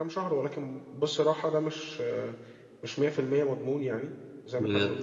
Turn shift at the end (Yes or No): No